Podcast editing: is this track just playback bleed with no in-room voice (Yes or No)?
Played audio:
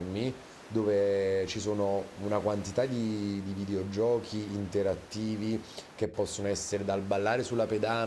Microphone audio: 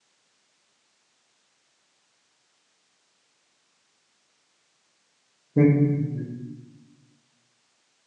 No